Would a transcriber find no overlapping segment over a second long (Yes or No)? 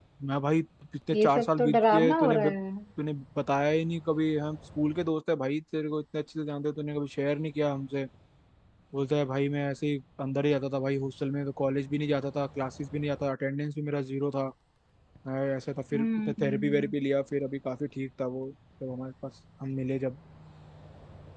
No